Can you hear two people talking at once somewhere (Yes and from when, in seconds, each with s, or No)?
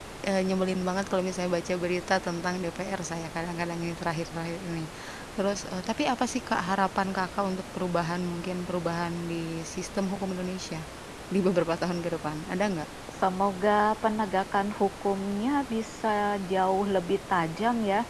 No